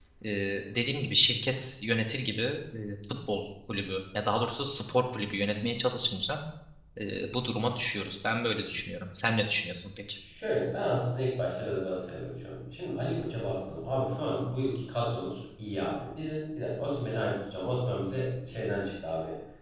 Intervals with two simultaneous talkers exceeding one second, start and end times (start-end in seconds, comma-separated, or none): none